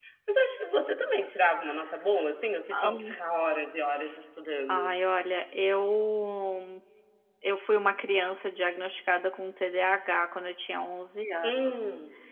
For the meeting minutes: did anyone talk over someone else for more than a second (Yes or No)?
No